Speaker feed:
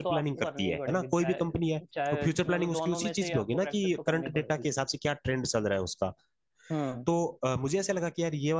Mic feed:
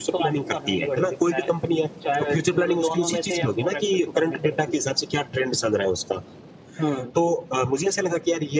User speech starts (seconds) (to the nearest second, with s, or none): none